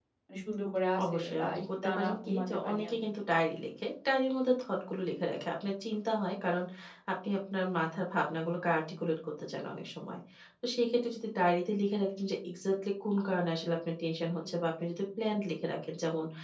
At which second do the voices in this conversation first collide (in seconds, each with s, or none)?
1.1 s